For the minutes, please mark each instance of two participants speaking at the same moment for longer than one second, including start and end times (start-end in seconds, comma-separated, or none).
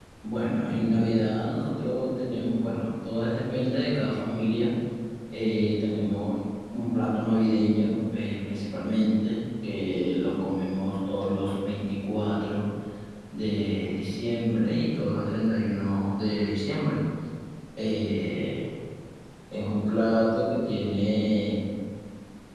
none